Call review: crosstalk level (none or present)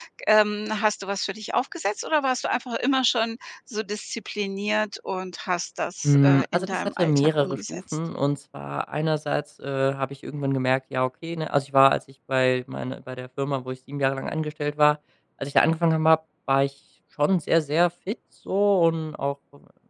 present